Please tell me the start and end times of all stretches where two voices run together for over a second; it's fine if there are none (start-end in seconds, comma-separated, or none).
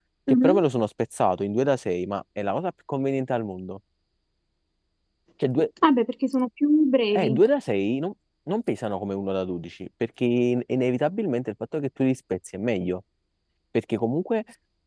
none